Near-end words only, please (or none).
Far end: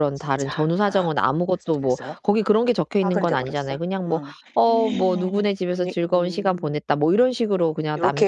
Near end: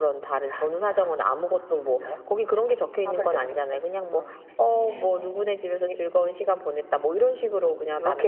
none